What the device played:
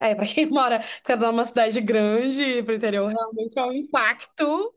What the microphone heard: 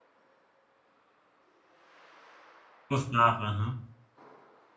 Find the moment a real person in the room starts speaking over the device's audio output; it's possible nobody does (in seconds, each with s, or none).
2.9 s